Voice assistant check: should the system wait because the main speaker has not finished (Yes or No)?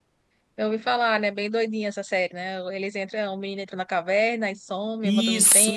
No